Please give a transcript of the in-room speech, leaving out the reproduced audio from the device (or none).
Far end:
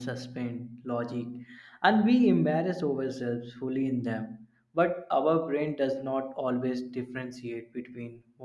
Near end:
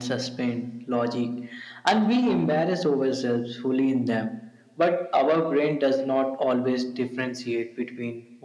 none